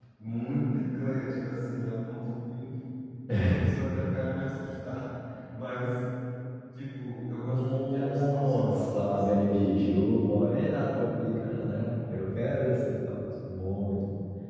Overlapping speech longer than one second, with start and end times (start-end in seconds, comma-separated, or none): 7.5-10.3